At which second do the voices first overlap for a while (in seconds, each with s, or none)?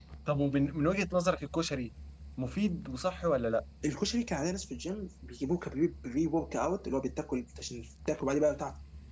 none